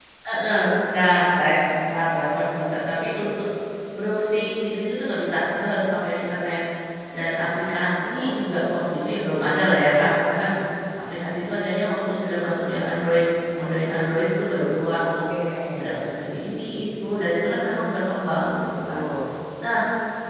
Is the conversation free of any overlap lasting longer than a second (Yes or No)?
Yes